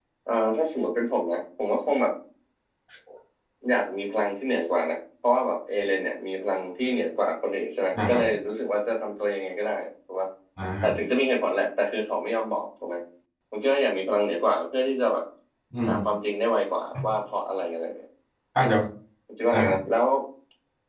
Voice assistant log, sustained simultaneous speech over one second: none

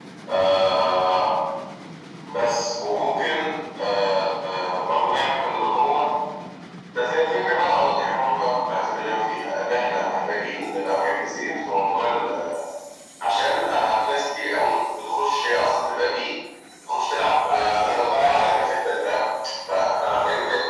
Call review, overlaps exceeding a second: present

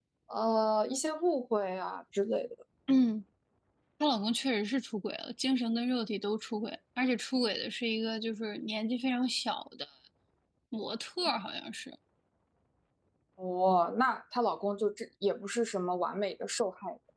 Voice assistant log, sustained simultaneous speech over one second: none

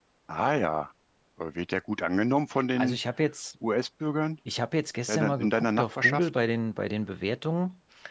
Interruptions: present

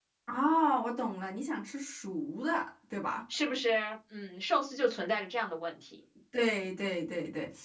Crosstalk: none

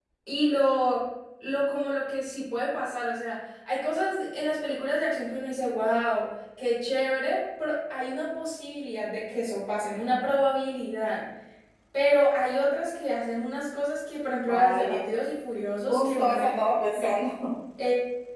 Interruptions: present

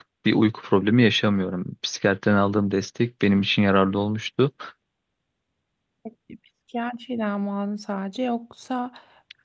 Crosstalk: none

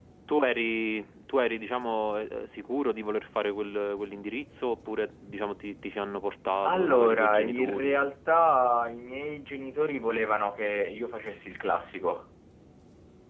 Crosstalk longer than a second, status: present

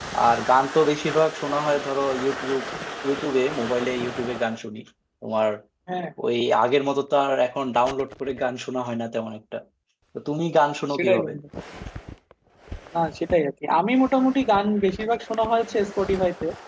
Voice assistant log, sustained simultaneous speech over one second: none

